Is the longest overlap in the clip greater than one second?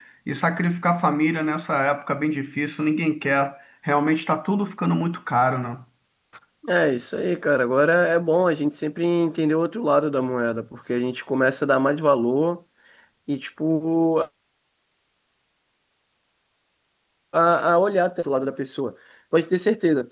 No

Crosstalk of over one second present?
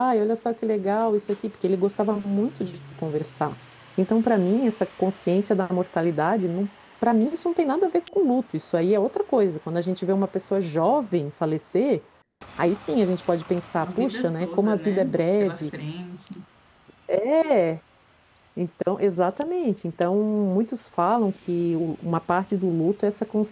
Yes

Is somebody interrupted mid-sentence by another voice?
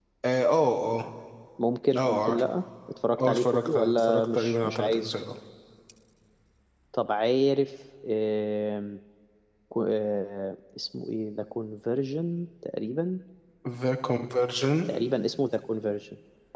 Yes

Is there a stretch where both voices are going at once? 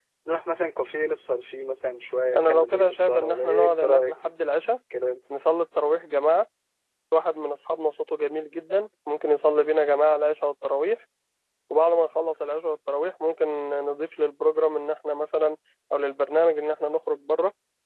Yes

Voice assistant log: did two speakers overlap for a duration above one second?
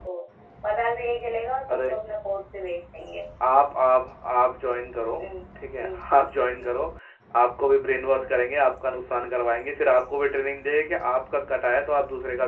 No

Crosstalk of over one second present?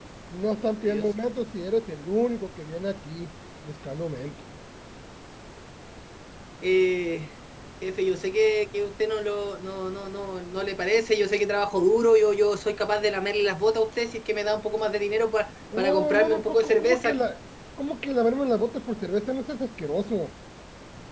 Yes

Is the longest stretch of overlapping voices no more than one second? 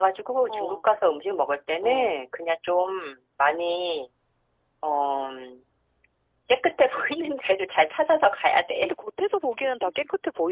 Yes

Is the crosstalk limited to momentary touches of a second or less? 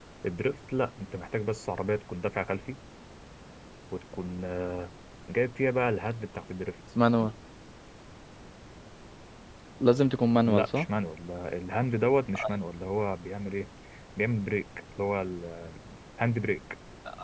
Yes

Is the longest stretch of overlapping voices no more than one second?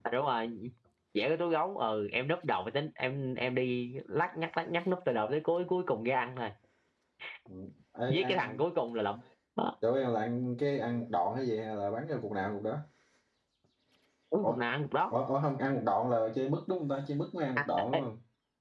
Yes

